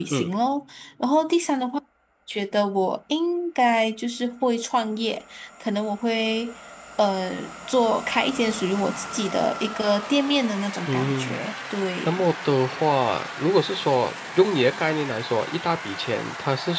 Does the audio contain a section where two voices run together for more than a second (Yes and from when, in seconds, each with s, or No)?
No